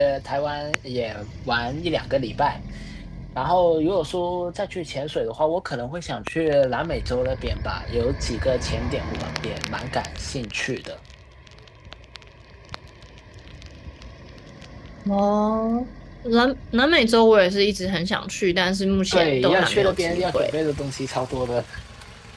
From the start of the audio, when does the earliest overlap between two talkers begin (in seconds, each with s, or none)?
19.1 s